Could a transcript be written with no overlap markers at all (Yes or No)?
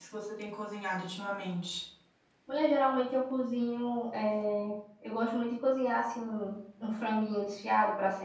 Yes